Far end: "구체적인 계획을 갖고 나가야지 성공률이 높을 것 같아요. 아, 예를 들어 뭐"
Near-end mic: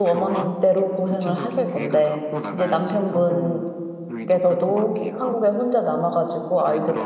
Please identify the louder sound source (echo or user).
user